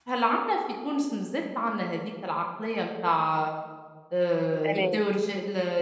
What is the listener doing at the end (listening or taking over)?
listening